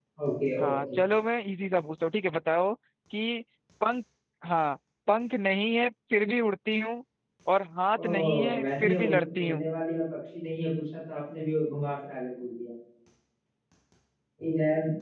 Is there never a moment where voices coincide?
No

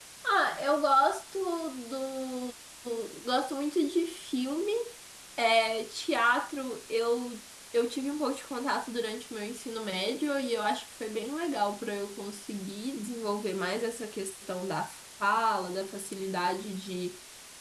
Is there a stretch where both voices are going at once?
No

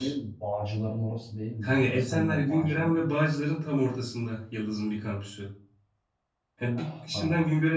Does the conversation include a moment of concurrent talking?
Yes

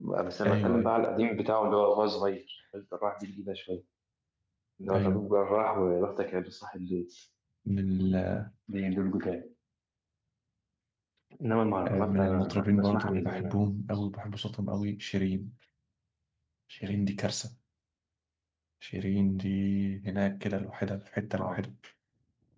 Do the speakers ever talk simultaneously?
Yes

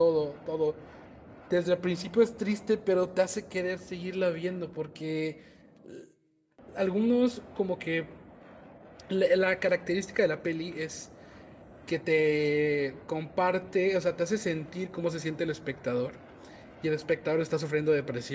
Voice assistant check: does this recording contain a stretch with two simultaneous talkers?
No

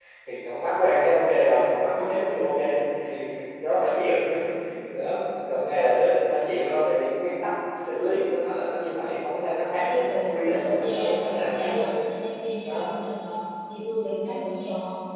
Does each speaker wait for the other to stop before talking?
No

